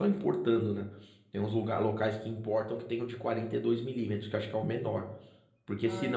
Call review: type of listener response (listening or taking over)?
listening